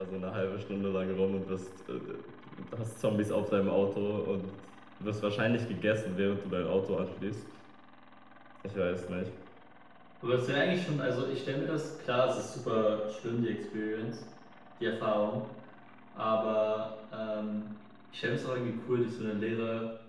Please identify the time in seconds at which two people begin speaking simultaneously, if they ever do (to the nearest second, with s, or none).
none